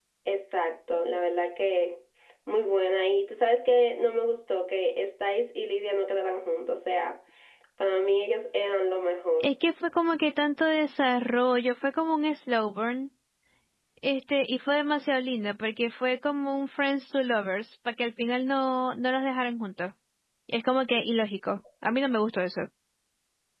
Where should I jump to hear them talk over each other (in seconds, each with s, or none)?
none